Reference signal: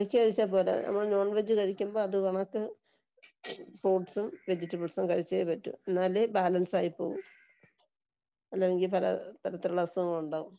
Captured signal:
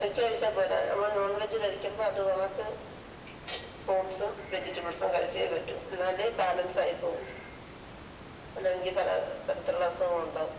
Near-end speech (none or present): none